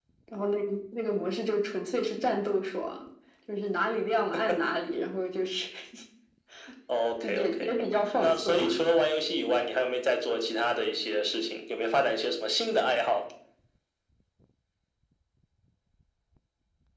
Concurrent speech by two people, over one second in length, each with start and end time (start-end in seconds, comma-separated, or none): none